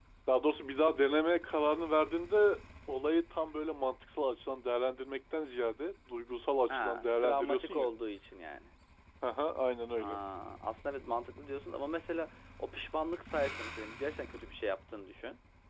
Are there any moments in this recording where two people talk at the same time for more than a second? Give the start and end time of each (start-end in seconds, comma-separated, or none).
6.7-7.9